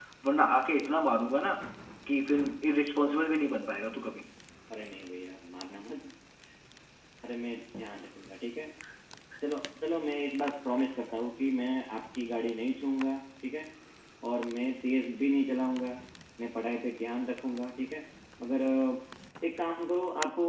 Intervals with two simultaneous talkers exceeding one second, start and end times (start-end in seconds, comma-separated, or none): none